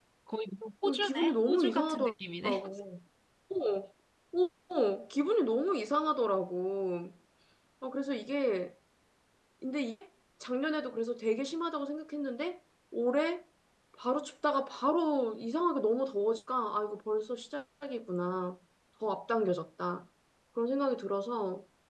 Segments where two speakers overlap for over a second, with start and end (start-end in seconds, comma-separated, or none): 0.8-2.1